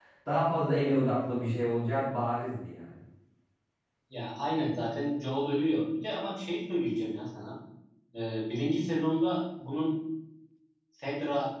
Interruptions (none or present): none